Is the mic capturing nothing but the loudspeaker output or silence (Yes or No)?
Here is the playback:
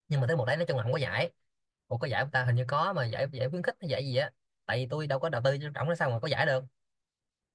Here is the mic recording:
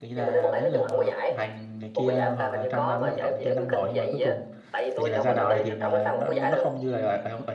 No